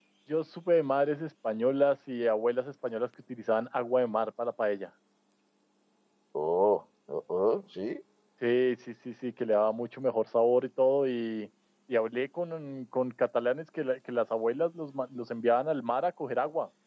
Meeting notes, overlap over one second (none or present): none